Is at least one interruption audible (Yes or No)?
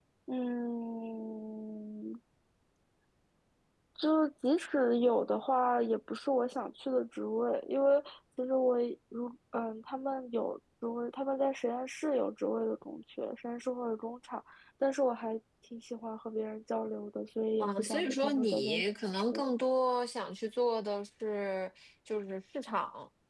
Yes